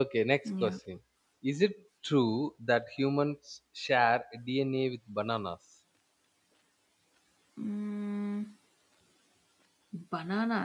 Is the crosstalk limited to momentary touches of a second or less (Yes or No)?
Yes